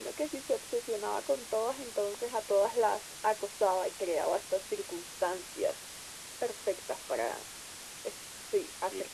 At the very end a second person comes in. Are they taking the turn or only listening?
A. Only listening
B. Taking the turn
B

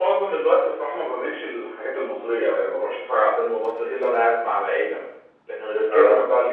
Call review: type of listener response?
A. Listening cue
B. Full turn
A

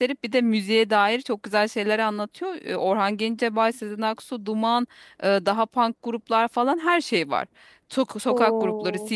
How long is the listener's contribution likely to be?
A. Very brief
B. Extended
A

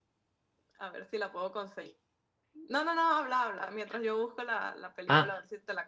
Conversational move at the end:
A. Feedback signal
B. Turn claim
B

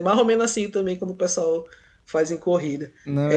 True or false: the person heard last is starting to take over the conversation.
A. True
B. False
B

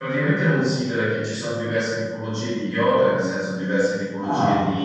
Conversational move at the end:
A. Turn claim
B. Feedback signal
B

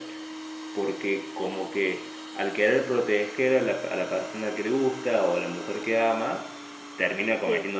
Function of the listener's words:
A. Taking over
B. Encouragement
B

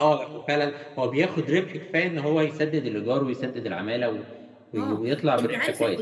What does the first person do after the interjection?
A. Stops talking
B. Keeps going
A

